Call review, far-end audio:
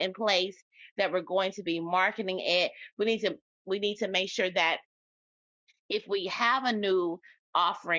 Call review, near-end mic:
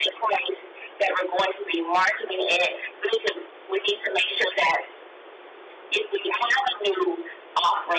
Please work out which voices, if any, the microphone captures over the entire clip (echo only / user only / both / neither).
echo only